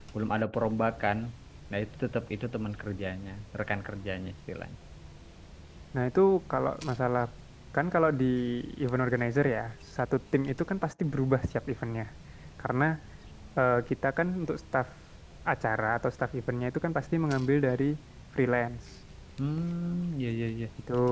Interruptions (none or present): none